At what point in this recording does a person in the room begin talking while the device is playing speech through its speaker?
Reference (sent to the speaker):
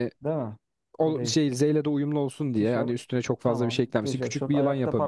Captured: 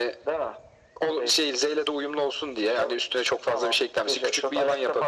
none

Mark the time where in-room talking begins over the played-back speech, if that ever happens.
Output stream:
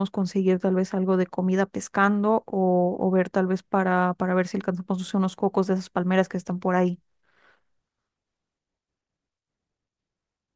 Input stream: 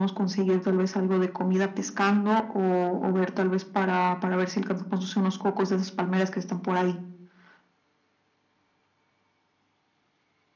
none

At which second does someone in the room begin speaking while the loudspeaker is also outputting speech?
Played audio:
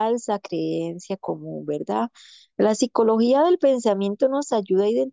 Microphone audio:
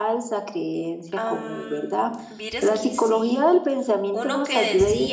1.2 s

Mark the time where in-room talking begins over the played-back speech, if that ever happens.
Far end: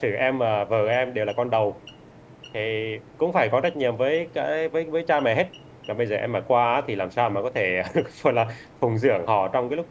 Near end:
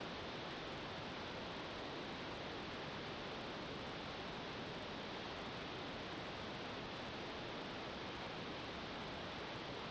none

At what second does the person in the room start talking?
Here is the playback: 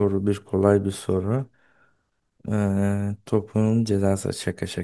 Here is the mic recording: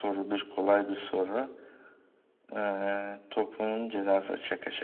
none

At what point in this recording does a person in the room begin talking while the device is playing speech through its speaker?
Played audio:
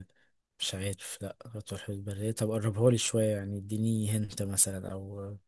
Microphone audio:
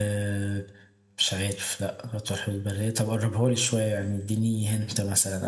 none

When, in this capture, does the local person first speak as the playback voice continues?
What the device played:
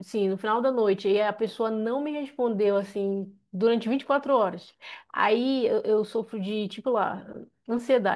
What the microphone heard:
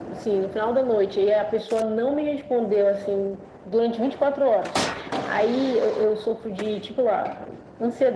none

